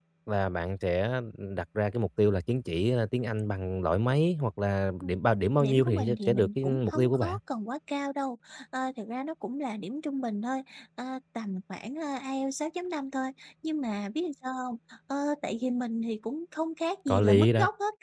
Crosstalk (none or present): present